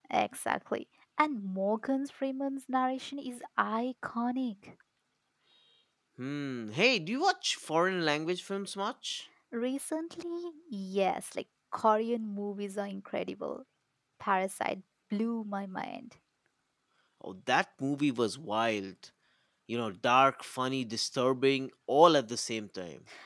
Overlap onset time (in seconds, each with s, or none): none